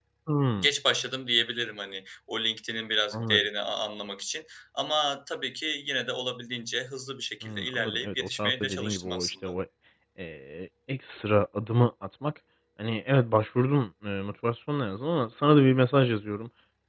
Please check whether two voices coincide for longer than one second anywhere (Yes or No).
Yes